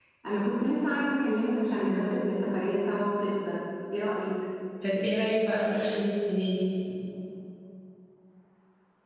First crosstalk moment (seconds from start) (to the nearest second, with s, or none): none